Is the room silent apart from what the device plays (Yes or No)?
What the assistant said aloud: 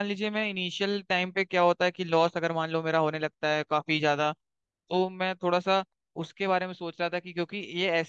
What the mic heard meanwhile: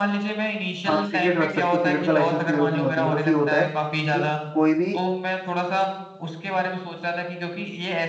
No